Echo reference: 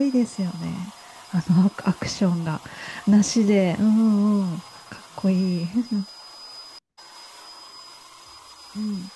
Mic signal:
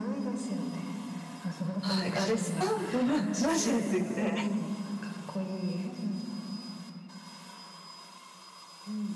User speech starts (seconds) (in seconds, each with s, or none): 1.8 s